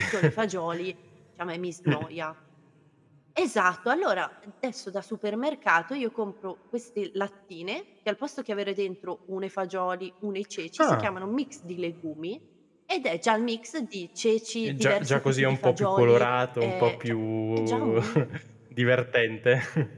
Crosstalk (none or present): present